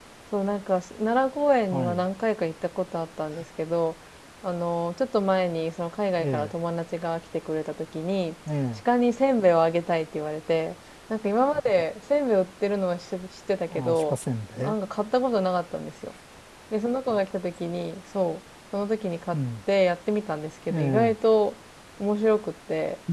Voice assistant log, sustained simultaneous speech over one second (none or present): none